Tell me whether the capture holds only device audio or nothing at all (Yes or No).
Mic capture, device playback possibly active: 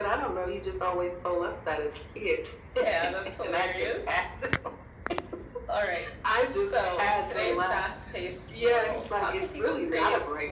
Yes